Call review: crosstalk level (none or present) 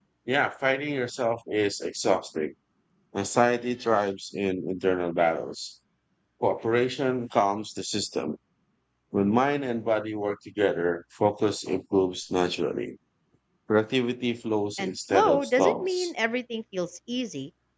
present